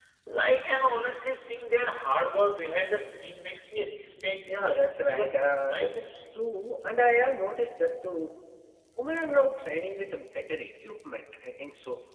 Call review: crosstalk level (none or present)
present